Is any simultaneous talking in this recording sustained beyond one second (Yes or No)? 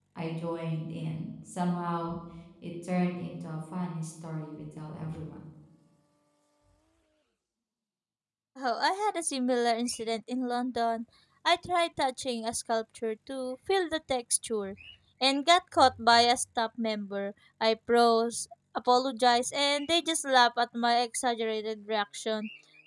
No